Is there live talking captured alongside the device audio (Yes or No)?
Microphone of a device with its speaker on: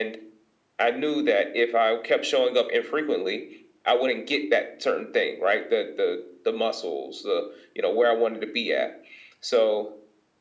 No